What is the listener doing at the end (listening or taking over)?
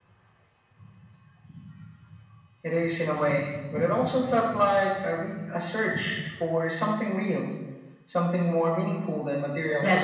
taking over